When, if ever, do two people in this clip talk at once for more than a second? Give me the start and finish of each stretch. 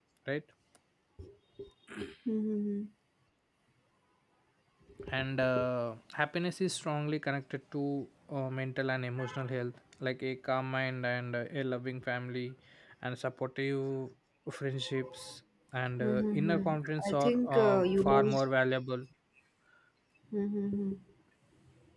16.0-18.4

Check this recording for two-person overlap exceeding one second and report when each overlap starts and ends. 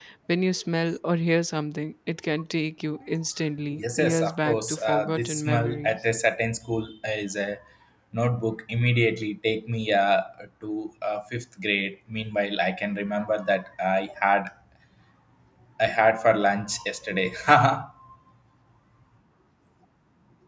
3.8-6.0

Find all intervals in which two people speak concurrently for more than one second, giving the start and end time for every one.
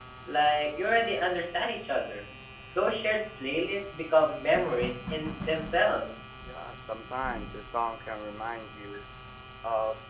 none

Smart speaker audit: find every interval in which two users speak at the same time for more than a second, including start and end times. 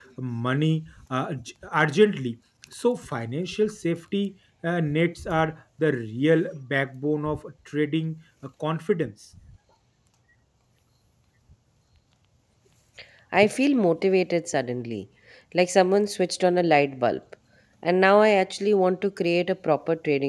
none

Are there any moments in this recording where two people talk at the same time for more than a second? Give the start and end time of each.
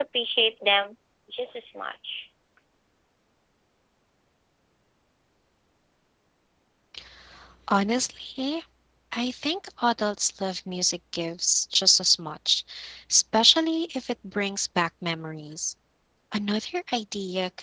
none

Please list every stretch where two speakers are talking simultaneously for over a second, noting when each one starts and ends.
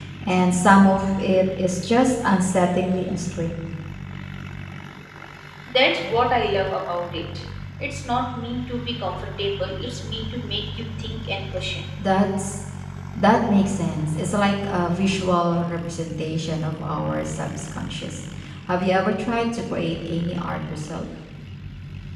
none

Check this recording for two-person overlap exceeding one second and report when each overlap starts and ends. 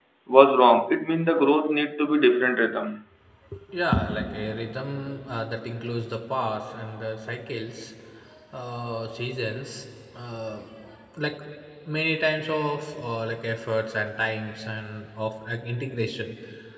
none

